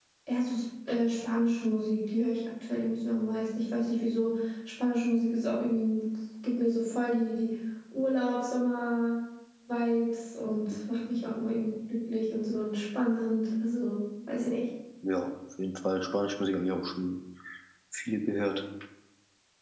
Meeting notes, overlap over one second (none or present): none